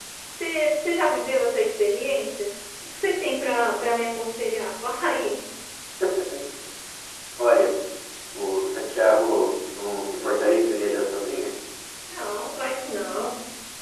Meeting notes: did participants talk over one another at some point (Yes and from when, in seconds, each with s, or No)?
No